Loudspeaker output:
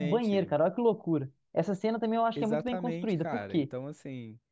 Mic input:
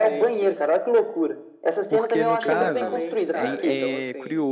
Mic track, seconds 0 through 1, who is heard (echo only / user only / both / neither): echo only